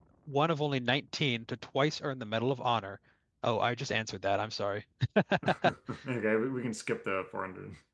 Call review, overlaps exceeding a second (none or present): none